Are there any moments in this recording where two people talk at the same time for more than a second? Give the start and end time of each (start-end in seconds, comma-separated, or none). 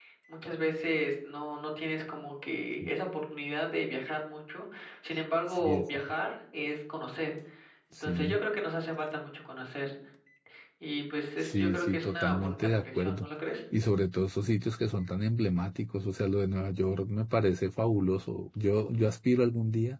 11.4-13.3